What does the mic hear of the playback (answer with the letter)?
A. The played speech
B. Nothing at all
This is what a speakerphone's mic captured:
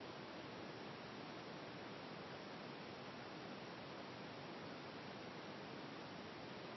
B